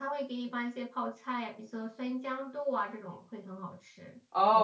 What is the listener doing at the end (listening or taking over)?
taking over